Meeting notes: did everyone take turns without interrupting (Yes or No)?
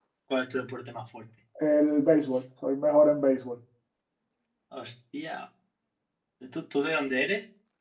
Yes